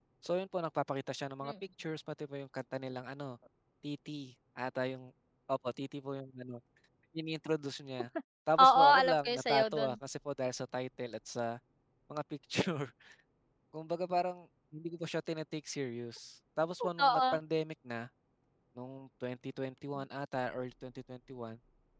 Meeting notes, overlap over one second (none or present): present